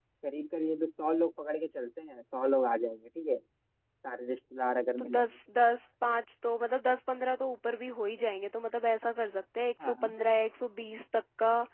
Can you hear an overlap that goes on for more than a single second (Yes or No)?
No